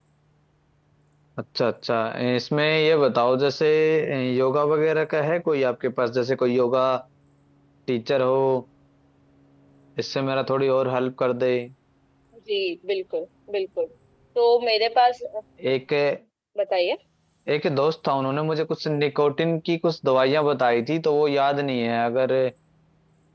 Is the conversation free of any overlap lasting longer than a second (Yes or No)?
Yes